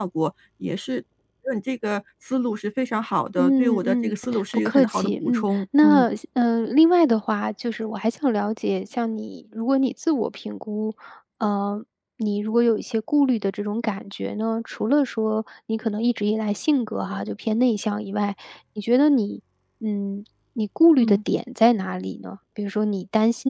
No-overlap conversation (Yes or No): No